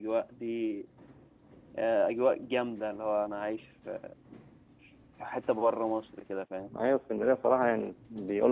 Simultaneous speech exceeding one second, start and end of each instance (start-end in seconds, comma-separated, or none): none